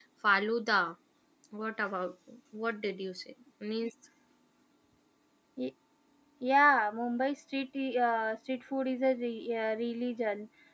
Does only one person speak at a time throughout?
Yes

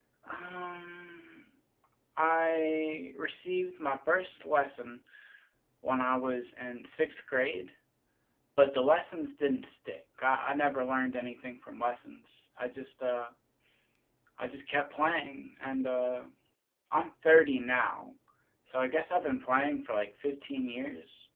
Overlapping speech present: No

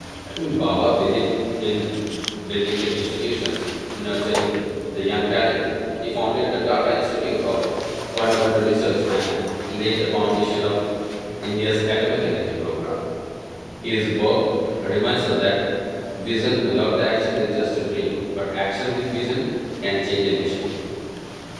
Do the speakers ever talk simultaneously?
No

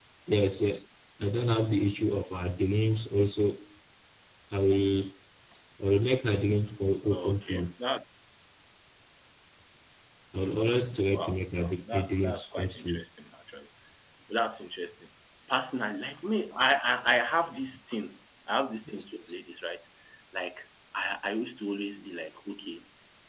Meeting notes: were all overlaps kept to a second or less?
No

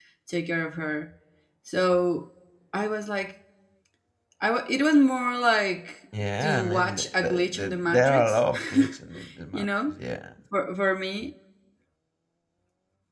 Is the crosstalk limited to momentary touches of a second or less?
No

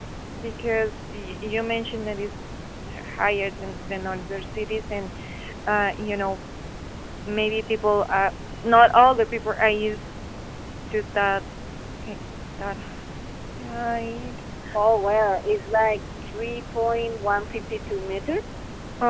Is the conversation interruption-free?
Yes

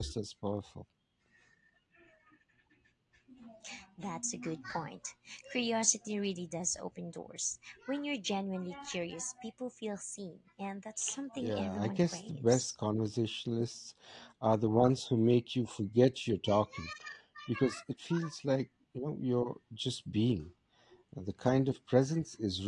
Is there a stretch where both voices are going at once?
Yes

